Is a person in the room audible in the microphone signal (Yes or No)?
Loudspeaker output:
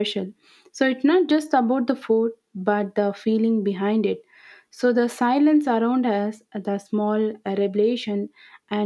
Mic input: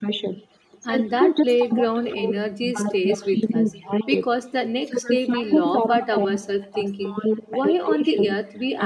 Yes